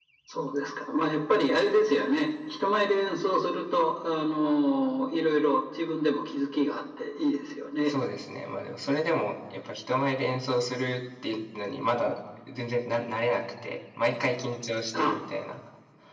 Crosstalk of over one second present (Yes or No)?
No